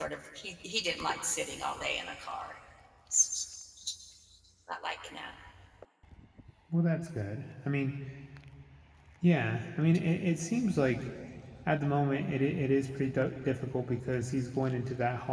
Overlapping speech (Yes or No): No